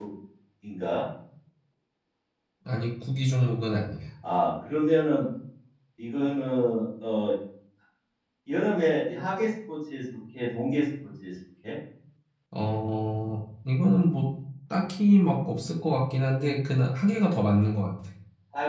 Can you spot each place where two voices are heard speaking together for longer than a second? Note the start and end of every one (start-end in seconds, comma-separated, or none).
none